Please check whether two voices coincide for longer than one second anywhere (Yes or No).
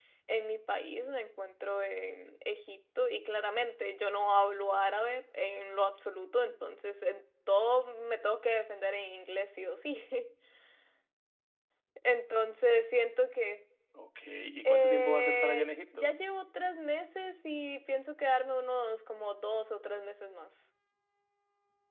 Yes